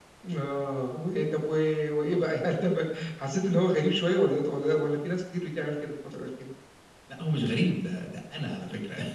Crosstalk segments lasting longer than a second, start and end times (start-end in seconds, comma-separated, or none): none